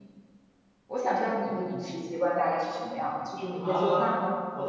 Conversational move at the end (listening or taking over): taking over